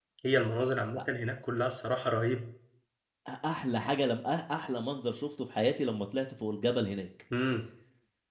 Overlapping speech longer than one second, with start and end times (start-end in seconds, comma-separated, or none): none